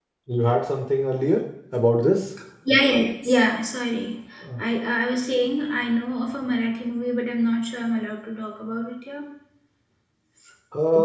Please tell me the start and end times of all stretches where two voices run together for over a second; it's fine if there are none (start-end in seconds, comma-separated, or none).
none